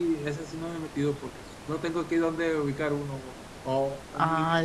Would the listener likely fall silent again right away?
Yes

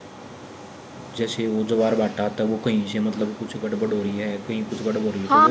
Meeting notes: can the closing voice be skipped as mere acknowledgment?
No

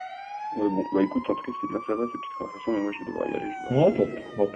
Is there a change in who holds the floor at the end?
Yes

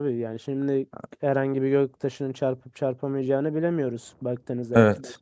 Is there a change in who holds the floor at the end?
Yes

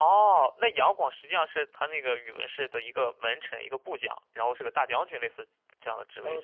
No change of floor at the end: No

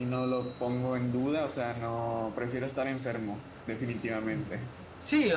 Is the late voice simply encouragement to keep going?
No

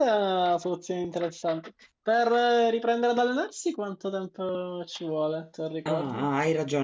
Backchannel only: No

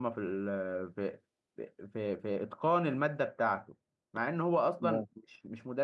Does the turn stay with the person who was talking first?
Yes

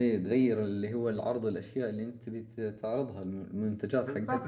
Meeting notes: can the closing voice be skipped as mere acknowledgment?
No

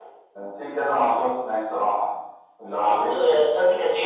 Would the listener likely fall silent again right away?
No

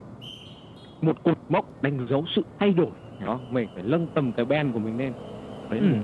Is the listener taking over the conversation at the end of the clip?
Yes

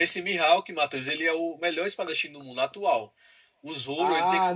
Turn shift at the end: Yes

